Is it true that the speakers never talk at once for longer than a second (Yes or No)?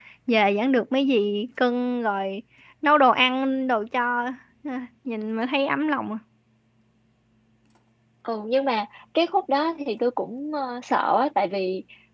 Yes